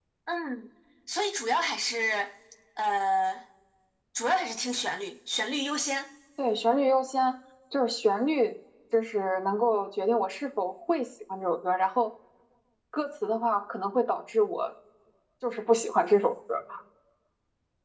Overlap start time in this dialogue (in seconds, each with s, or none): none